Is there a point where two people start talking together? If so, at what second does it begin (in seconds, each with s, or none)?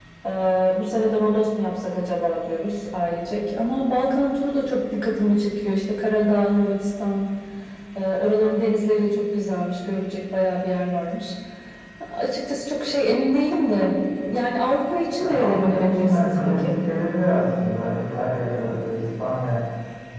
15.2 s